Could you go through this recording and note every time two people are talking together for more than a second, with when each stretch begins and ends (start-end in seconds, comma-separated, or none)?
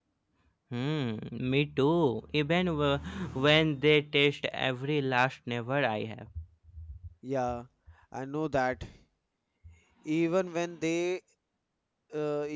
none